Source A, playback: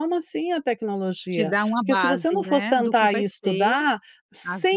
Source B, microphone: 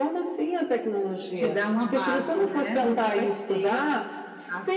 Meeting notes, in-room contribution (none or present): none